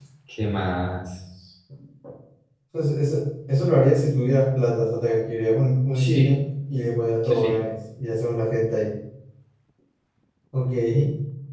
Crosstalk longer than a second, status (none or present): none